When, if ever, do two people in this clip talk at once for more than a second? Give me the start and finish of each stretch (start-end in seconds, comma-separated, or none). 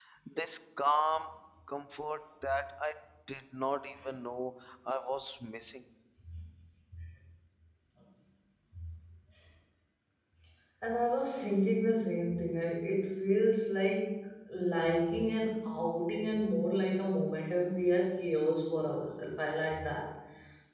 none